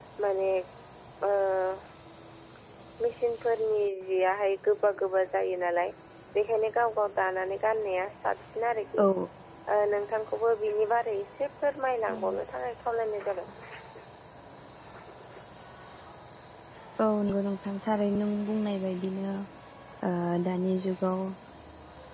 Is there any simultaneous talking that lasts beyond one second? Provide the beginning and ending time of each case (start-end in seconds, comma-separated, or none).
none